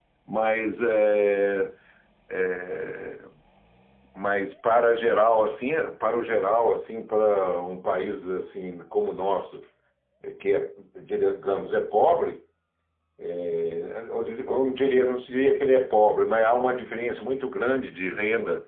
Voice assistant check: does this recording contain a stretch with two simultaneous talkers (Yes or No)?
No